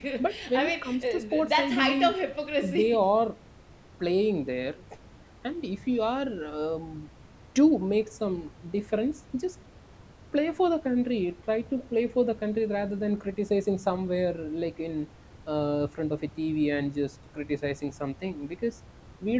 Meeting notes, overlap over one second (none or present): present